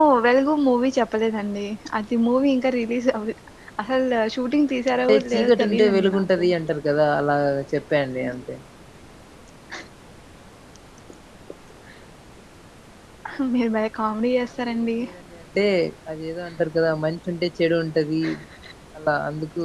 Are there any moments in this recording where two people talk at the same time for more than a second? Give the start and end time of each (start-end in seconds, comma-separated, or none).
5.1-6.4